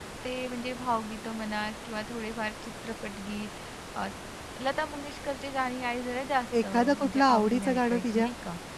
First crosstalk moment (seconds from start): 7 s

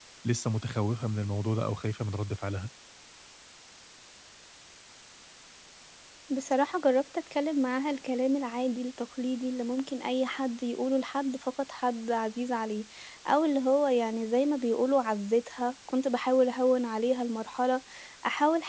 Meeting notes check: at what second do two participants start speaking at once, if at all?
none

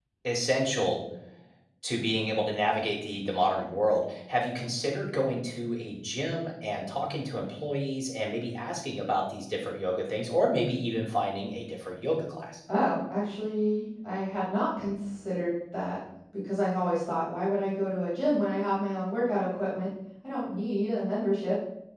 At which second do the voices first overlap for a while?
none

